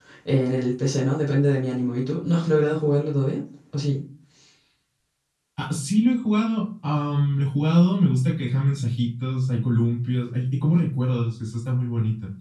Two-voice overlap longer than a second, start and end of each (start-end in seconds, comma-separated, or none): none